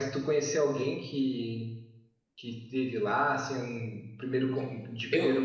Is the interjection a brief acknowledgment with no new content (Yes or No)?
Yes